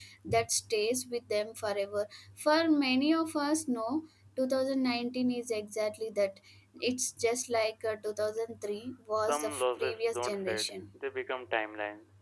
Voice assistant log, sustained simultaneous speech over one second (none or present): present